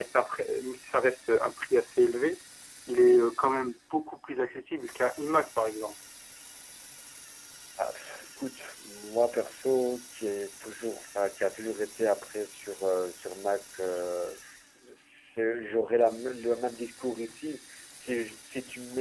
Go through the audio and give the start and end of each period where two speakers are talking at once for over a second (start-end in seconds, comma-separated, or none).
none